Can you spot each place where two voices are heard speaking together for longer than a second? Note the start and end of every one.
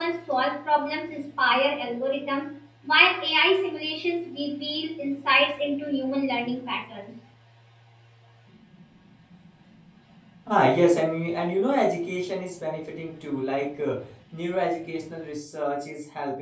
none

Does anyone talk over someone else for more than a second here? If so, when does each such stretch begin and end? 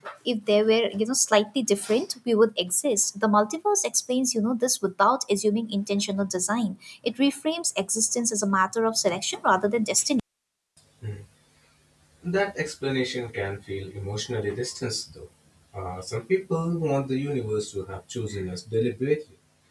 none

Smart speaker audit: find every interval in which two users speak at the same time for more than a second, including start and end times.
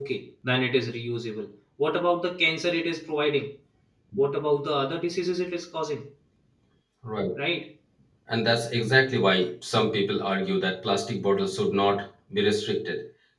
none

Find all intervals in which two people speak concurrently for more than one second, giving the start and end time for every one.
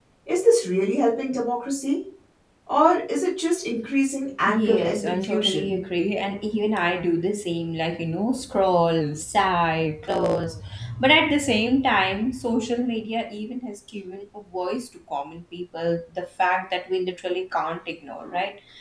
4.5-5.8

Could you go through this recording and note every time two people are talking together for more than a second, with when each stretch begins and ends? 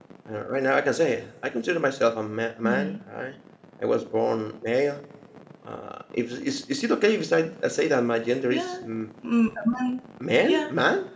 none

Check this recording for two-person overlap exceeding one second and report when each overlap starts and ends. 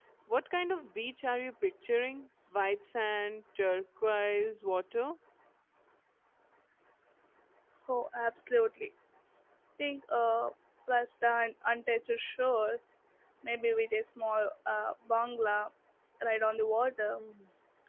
none

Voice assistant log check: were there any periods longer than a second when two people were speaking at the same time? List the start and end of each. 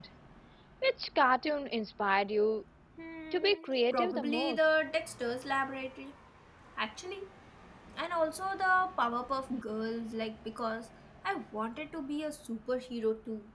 3.3-4.7

